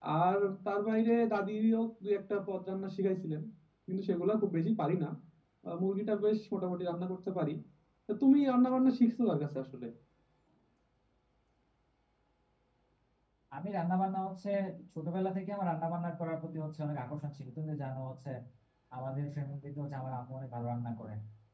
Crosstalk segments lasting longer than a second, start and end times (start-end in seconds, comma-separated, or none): none